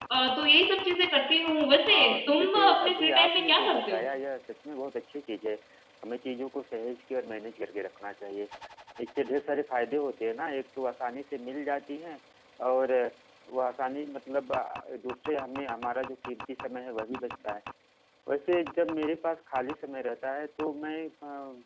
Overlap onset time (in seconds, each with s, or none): 1.9 s